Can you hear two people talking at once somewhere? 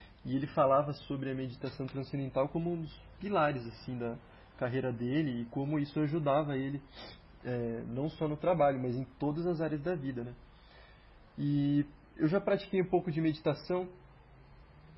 No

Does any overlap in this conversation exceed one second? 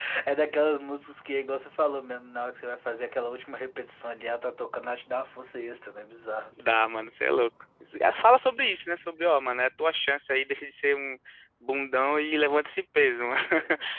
No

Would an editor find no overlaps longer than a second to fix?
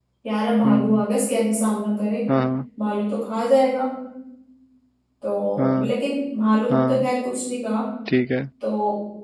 Yes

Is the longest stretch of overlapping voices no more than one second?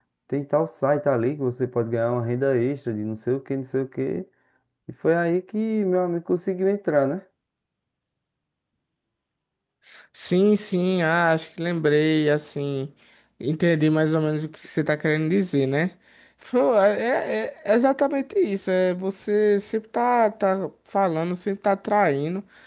Yes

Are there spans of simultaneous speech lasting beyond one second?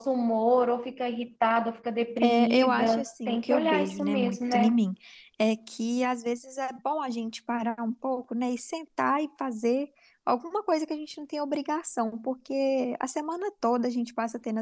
Yes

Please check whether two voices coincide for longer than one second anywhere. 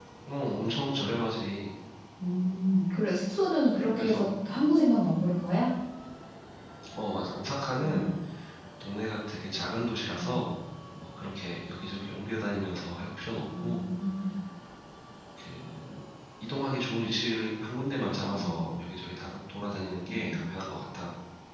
No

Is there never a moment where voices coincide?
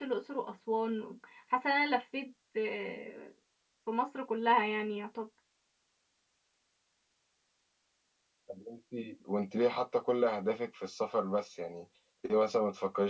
Yes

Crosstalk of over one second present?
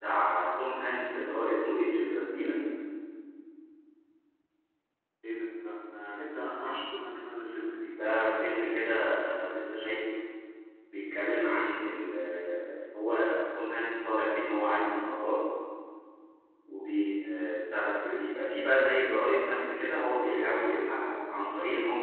No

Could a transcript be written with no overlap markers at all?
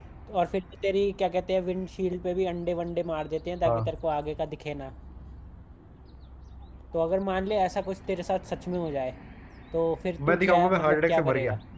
No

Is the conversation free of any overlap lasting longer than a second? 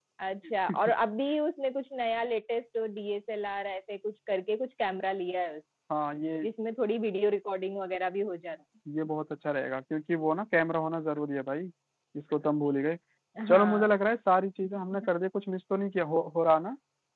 Yes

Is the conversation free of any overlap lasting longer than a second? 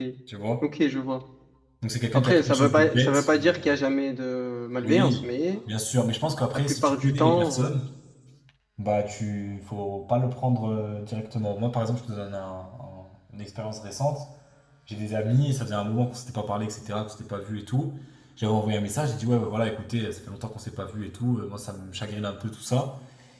No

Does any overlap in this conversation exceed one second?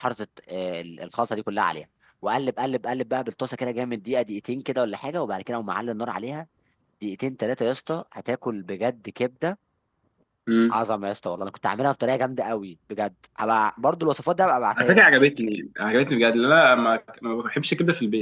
No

